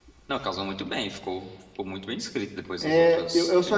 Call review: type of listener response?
taking over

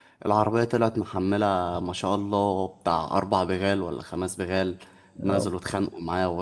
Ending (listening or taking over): listening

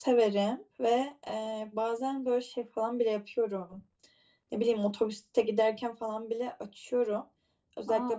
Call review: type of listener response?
listening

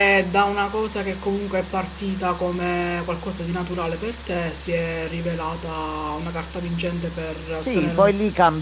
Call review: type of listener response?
taking over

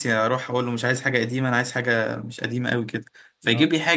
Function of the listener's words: listening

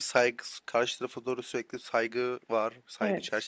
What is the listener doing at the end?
taking over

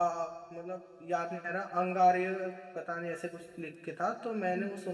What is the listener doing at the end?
taking over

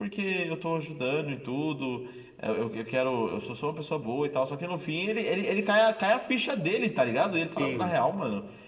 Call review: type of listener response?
listening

